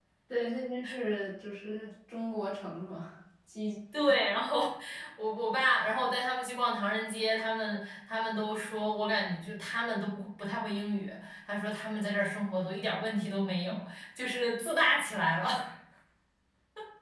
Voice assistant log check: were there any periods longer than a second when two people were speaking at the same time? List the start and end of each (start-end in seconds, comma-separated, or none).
none